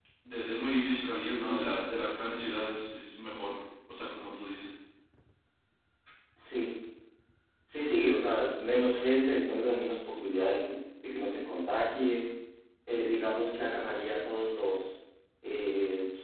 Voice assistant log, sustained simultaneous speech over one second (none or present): none